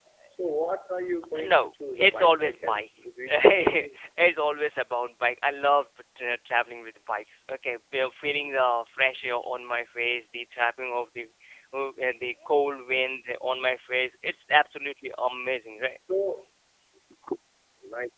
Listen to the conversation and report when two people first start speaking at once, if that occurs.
1 s

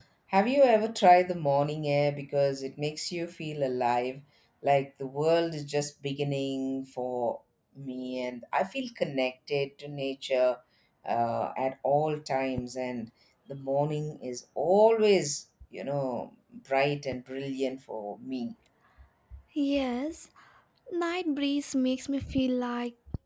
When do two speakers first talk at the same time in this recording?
none

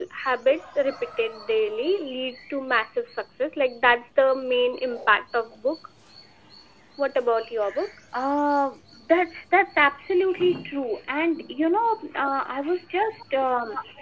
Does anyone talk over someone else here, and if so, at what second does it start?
none

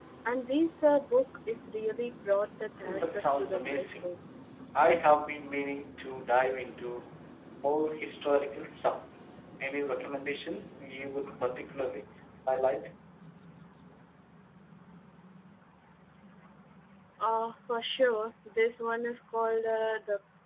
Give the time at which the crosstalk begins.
3 s

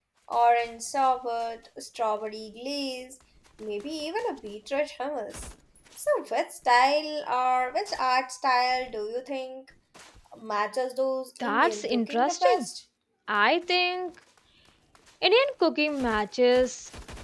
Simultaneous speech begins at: 11 s

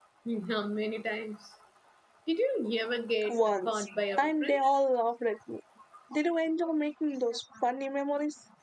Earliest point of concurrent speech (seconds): 3 s

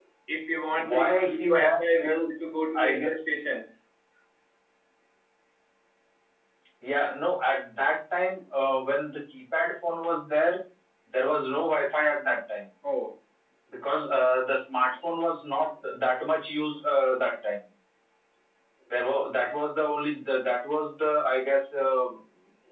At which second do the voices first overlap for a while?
1 s

